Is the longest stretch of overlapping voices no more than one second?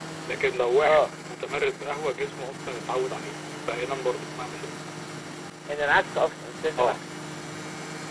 Yes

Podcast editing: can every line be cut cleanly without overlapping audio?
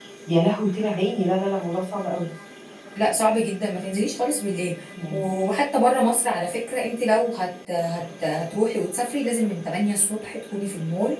Yes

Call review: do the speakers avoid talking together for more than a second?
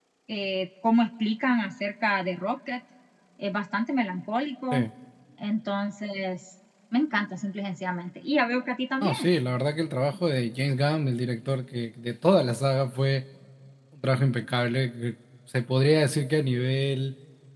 Yes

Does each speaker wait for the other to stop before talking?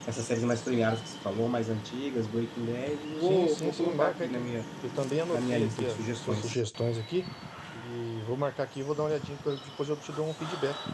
No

